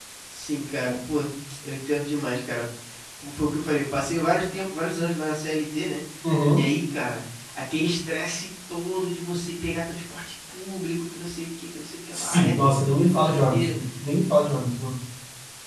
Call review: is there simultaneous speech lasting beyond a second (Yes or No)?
Yes